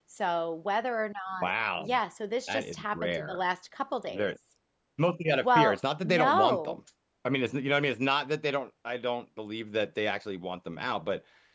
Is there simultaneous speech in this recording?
Yes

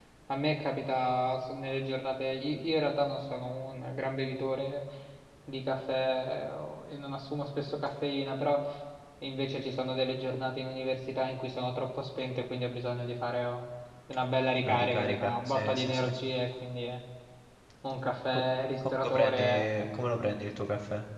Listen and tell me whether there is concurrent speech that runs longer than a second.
Yes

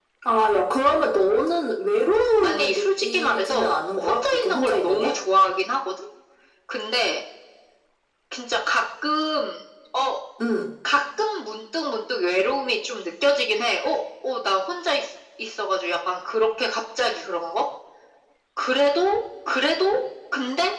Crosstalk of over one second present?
Yes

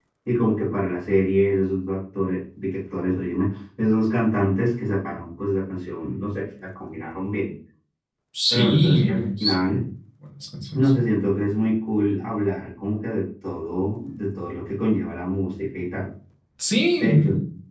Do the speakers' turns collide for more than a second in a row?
Yes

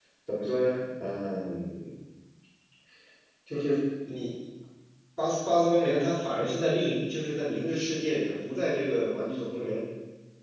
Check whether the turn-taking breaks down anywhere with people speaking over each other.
No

